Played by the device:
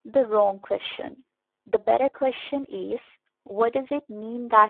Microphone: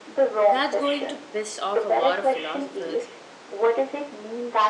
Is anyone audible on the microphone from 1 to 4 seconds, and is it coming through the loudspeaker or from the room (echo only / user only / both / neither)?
both